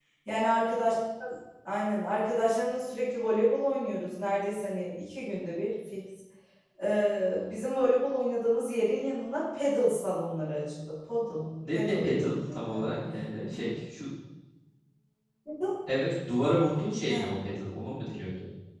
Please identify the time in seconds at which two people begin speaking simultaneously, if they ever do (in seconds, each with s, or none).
11.6 s